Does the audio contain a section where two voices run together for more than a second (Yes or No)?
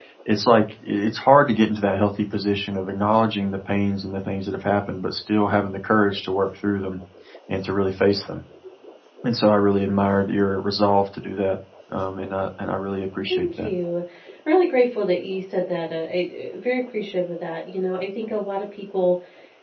No